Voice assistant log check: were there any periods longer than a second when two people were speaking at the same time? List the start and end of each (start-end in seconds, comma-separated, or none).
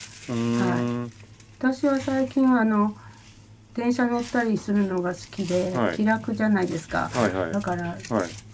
none